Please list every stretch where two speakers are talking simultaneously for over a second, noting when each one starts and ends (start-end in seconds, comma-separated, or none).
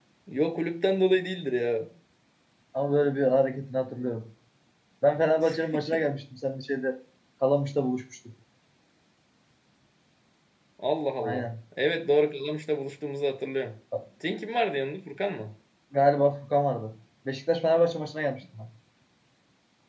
none